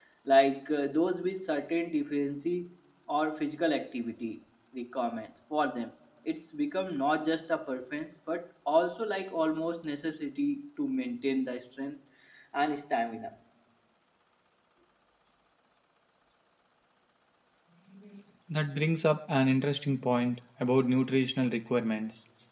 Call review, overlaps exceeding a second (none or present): none